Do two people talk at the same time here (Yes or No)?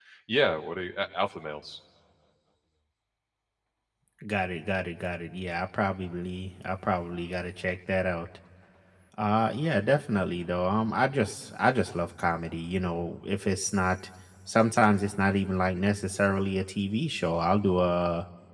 No